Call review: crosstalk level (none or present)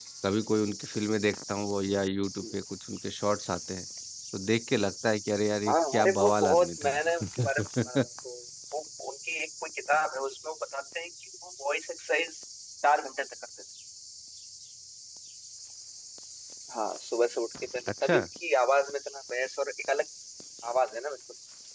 present